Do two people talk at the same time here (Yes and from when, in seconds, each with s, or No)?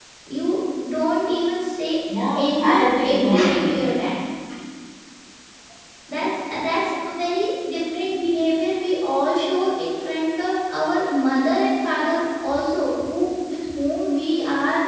Yes, from 2.4 s